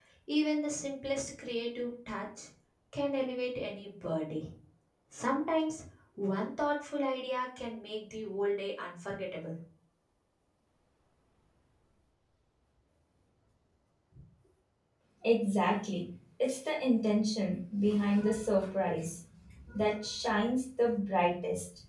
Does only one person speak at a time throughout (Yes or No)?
Yes